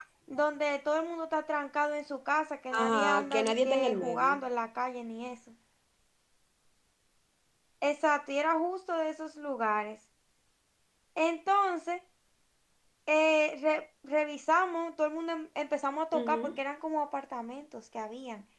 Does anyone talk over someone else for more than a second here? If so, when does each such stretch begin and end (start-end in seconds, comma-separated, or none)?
2.7-4.4